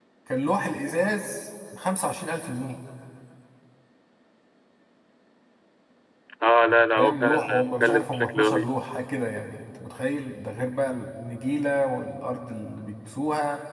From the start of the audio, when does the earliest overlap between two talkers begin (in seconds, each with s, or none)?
7.0 s